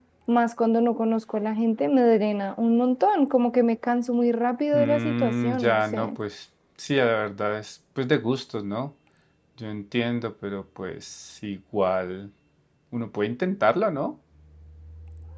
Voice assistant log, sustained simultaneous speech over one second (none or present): present